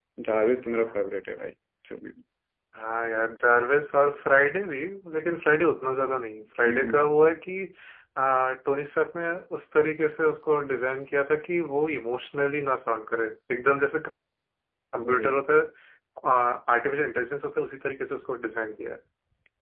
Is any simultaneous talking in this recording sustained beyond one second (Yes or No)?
No